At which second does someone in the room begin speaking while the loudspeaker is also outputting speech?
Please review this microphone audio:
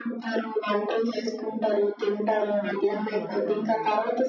2.4 s

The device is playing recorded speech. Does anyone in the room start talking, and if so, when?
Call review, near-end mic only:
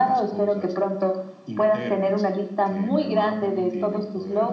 none

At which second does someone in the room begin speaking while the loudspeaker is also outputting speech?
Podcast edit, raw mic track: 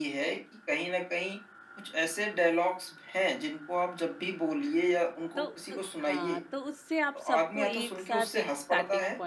5.3 s

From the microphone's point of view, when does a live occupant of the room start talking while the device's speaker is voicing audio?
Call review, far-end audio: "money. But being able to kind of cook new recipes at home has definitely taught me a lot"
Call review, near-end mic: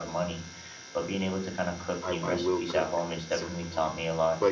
2.0 s

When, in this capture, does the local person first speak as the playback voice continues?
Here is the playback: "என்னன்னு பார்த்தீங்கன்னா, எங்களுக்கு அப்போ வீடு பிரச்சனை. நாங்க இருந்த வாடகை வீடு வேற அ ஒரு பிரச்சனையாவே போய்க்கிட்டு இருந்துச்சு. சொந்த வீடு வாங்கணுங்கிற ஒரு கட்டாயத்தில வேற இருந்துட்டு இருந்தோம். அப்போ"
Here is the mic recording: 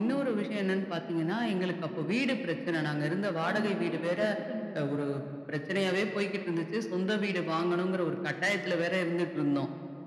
3.4 s

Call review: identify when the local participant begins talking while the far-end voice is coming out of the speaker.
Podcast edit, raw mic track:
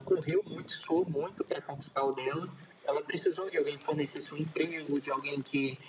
none

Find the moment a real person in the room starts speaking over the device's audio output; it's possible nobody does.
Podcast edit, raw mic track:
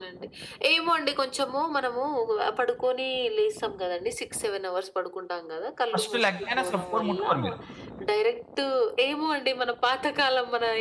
5.9 s

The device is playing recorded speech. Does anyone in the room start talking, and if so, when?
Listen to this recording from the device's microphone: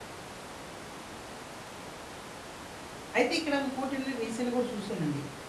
3.2 s

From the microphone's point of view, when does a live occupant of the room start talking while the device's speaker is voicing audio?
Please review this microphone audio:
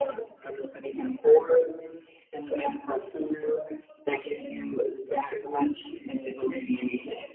none

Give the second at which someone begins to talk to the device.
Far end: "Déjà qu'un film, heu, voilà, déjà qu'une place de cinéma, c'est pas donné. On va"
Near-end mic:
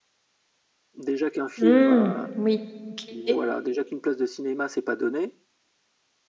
1.6 s

